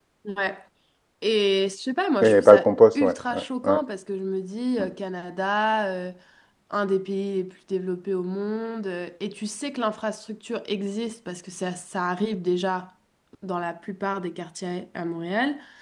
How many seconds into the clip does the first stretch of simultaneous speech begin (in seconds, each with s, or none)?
2.2 s